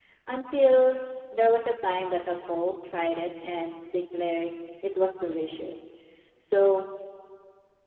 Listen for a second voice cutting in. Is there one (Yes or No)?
No